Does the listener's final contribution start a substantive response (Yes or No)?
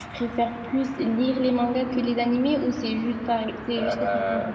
Yes